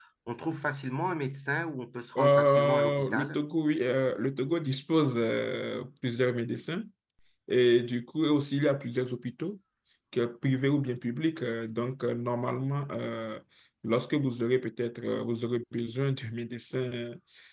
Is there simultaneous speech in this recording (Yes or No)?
Yes